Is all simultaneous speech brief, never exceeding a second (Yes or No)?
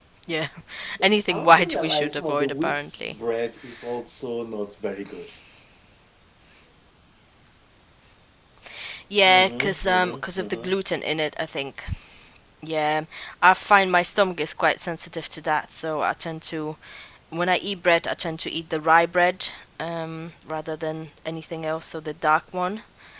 No